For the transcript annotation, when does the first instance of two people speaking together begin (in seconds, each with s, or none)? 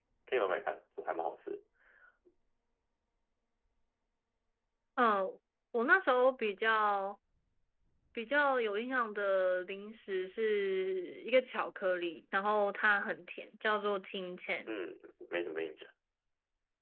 none